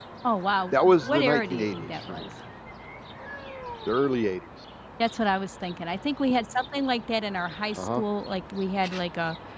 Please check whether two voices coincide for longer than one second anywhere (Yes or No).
Yes